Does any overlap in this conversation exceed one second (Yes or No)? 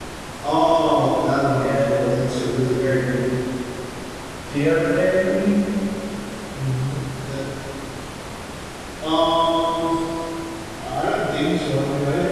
Yes